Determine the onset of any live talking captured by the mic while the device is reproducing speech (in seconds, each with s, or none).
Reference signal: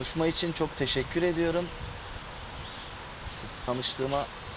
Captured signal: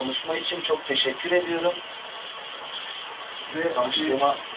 3.4 s